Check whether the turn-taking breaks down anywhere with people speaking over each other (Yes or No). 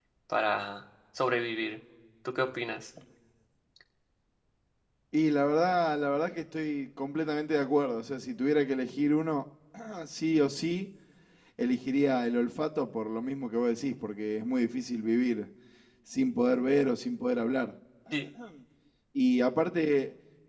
No